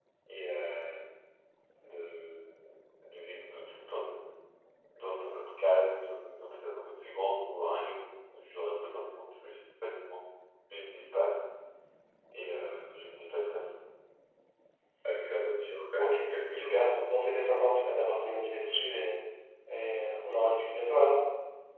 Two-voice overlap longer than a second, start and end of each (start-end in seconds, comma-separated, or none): 16.0-17.4